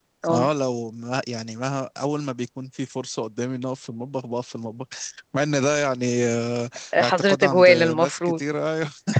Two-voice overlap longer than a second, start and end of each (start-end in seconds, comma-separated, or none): 7.0-8.4